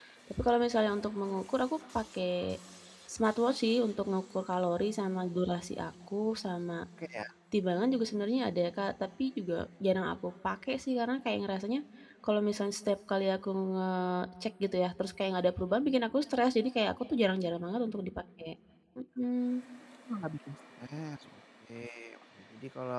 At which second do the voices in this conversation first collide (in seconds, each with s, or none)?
none